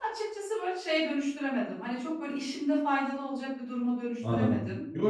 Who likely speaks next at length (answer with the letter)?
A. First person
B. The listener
B